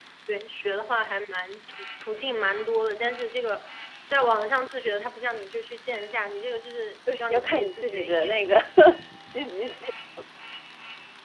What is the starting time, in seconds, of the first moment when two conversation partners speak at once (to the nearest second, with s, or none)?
7 s